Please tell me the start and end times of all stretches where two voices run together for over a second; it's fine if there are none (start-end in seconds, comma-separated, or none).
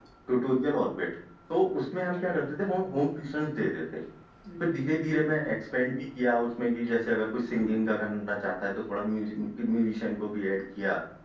none